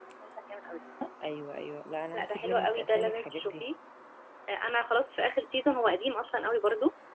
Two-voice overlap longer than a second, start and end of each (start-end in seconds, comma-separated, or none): 2.1-3.6